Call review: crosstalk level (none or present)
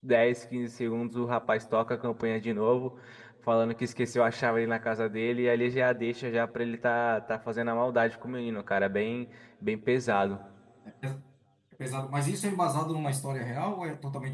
none